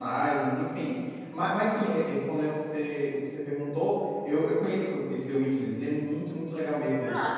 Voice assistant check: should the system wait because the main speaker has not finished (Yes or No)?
Yes